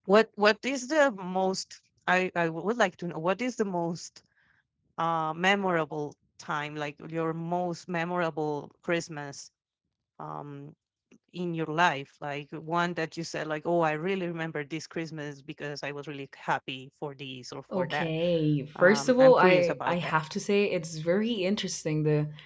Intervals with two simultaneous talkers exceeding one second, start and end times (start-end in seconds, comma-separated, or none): 18.8-20.2